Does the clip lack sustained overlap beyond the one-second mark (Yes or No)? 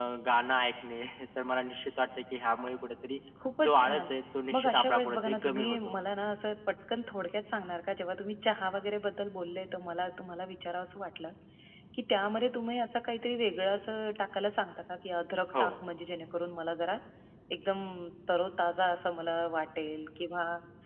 No